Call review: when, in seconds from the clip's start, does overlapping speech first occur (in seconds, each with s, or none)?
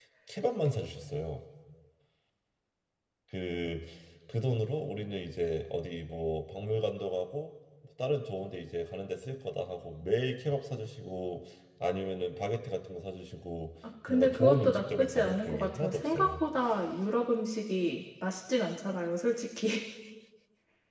14.1 s